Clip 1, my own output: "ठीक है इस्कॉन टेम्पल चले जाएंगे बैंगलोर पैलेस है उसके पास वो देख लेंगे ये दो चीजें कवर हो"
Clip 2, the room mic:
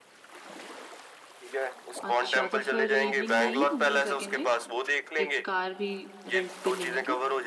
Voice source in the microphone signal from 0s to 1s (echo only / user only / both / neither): neither